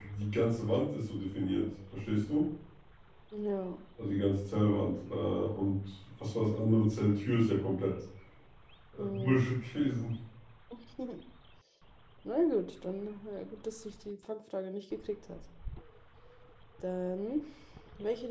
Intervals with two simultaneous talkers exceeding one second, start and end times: none

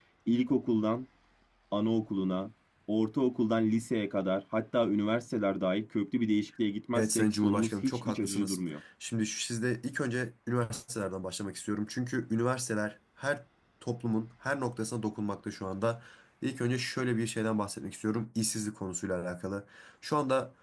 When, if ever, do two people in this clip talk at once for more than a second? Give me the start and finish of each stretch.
7.0-8.6

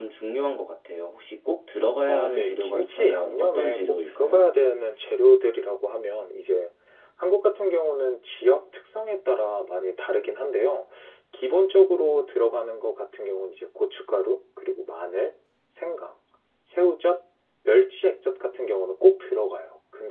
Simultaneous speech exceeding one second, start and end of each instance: 2.1-4.5

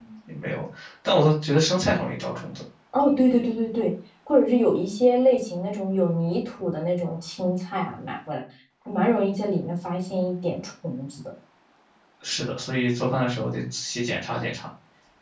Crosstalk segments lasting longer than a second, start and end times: none

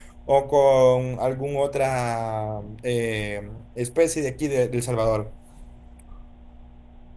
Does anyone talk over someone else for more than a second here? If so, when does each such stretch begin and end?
none

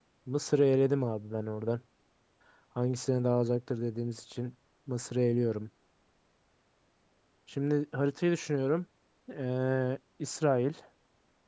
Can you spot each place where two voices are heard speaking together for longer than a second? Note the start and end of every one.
none

